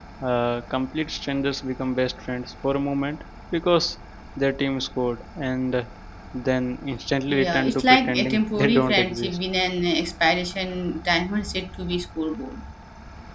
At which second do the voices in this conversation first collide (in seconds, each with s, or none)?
7.3 s